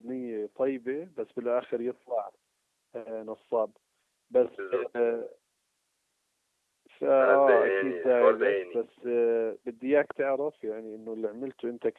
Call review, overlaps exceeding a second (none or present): present